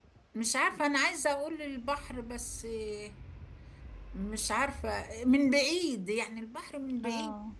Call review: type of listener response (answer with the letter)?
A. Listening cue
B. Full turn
B